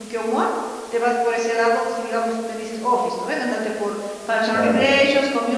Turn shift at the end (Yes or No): No